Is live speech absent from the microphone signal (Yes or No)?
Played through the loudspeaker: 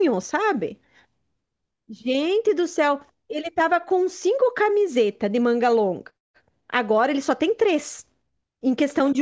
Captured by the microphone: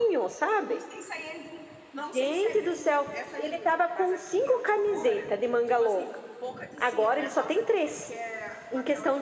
No